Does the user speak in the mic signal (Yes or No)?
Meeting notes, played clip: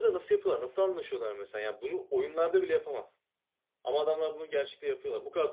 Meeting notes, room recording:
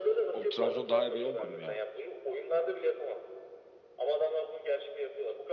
Yes